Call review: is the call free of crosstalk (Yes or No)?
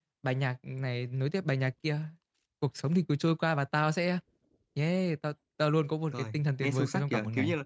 No